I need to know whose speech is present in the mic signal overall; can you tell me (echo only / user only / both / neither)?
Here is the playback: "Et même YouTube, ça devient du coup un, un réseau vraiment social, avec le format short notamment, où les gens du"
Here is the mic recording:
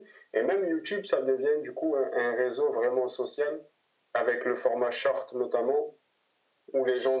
echo only